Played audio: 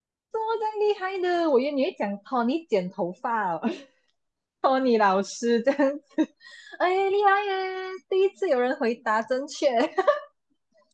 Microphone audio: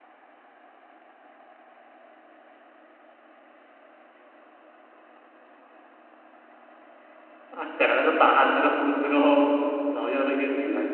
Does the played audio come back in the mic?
No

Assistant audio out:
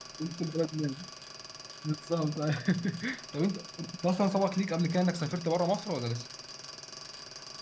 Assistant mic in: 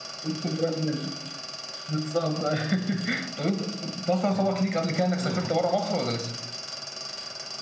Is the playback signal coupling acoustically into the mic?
Yes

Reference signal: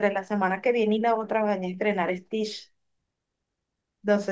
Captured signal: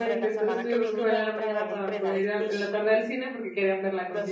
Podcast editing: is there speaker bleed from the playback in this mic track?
Yes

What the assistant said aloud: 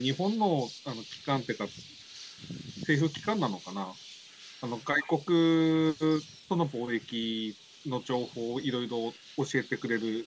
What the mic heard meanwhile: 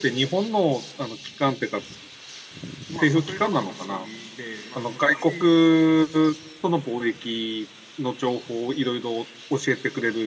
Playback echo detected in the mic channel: Yes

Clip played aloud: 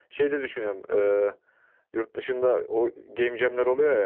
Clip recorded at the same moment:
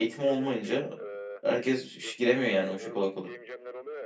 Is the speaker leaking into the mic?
Yes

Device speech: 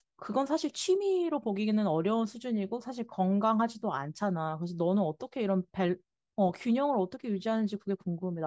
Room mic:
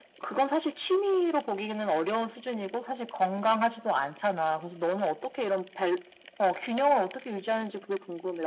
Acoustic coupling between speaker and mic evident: Yes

